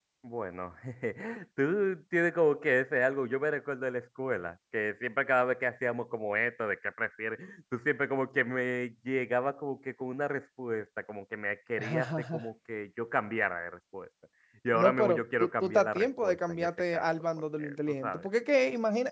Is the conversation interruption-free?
No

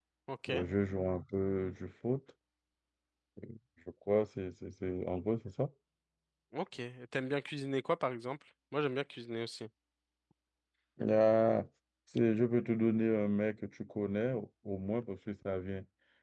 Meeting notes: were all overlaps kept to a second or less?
Yes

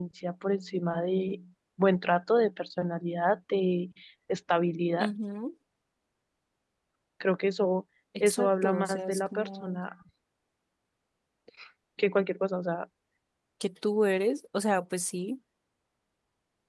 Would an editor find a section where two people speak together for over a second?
Yes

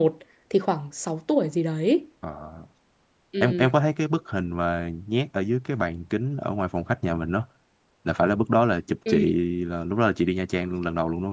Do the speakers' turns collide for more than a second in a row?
No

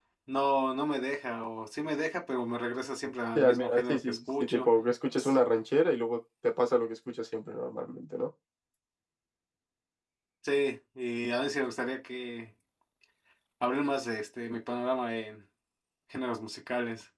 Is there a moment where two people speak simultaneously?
Yes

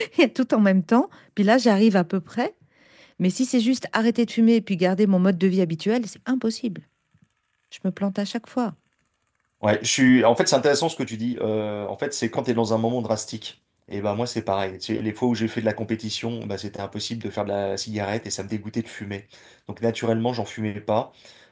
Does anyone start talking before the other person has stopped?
No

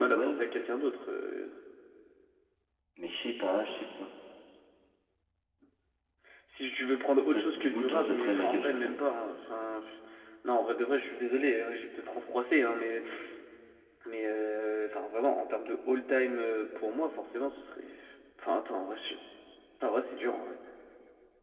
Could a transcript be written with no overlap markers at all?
No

